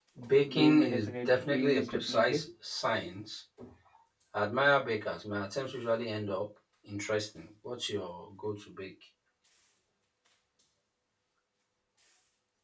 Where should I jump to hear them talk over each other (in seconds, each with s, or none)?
0.5 s